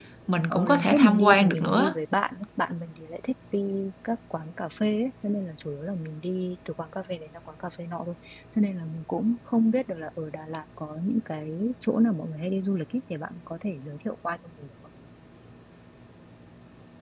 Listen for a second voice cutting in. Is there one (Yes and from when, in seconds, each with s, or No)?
Yes, from 0.5 s